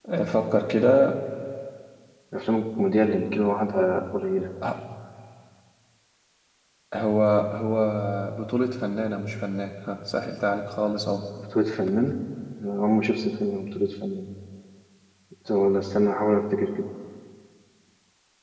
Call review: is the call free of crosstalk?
Yes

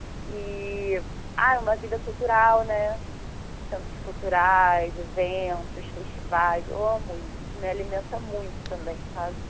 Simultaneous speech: No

